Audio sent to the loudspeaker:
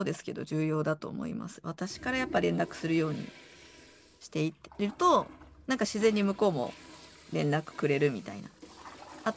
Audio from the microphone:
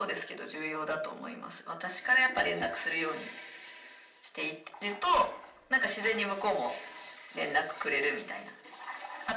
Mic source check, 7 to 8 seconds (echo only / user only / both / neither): echo only